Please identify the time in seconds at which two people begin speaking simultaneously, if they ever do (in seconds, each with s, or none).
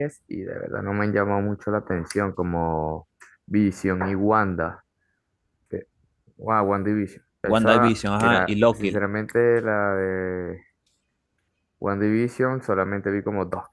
7.4 s